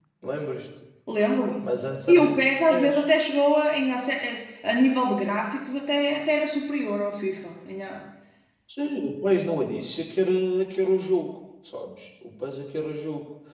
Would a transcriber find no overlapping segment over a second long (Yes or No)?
Yes